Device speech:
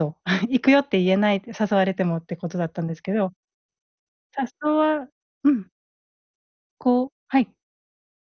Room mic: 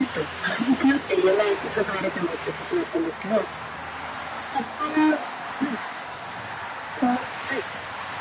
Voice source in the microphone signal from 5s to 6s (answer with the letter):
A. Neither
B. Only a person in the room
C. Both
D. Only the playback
D